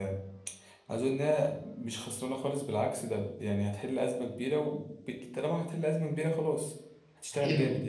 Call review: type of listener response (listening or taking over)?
taking over